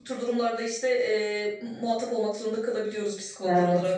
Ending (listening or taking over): taking over